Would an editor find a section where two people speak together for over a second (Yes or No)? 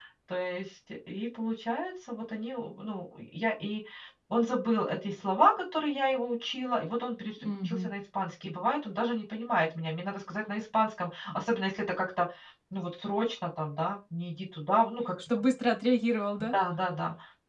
No